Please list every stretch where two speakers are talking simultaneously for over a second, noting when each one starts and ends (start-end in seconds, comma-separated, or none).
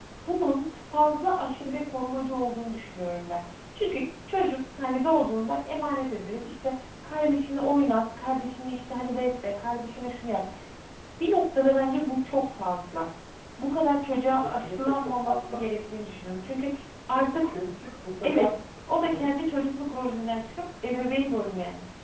14.4-15.6